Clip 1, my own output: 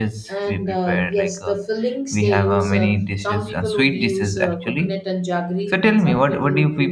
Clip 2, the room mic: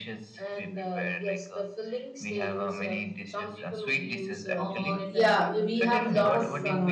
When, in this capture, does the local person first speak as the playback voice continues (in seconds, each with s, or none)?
4.6 s